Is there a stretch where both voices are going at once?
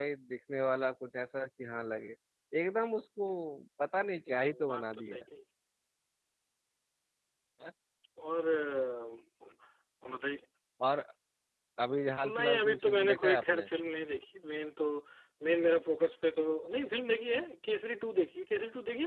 Yes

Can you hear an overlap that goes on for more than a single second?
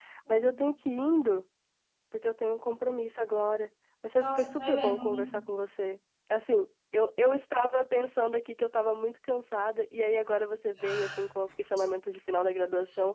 Yes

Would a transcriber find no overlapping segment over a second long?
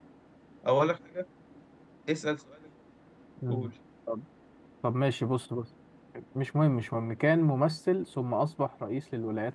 Yes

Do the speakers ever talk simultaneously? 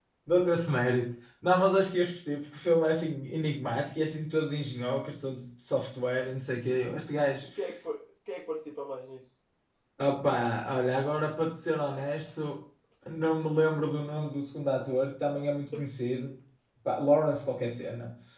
No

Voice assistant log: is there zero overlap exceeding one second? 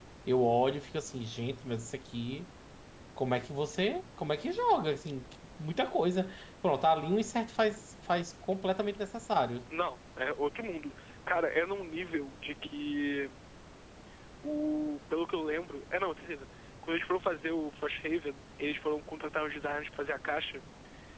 Yes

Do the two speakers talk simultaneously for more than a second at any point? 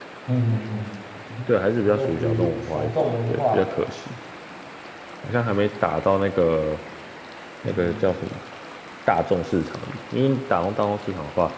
Yes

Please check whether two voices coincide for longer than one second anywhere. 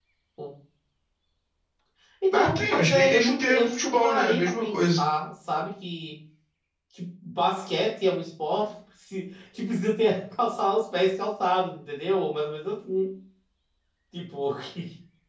Yes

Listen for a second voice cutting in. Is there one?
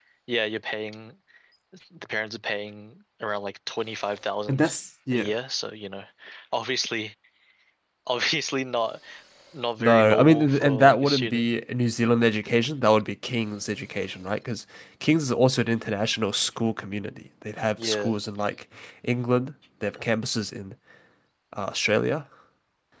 Yes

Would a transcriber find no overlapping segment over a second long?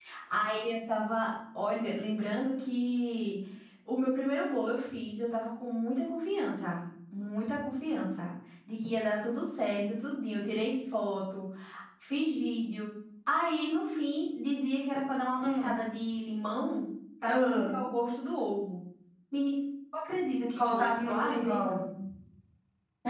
No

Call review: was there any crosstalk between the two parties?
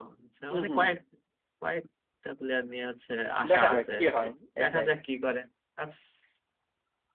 Yes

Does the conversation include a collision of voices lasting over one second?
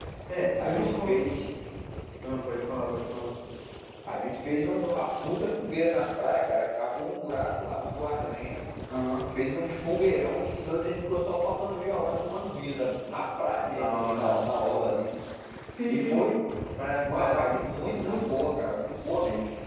Yes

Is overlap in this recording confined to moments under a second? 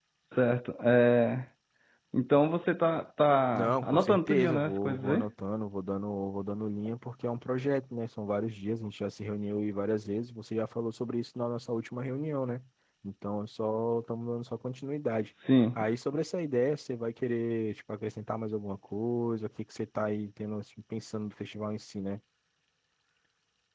No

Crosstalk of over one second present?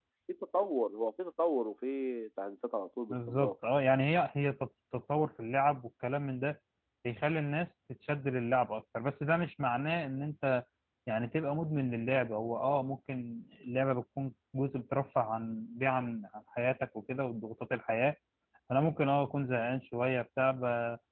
No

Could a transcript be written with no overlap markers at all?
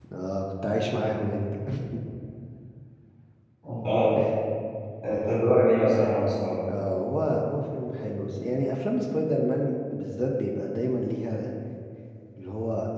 Yes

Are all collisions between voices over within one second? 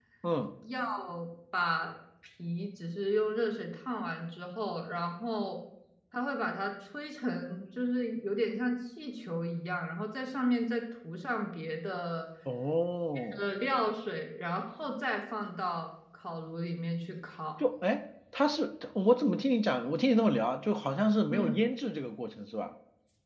Yes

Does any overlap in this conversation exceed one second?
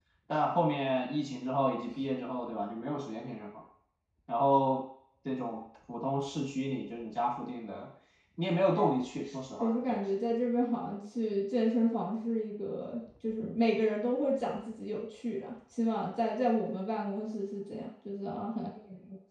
No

